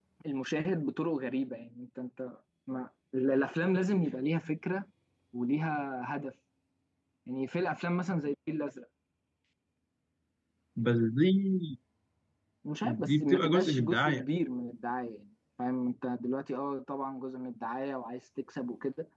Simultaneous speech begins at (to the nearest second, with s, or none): 13 s